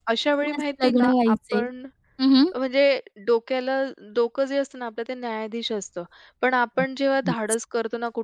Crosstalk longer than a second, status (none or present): present